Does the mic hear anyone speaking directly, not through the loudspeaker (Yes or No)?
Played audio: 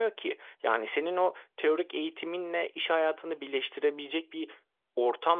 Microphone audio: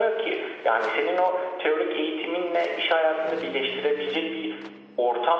No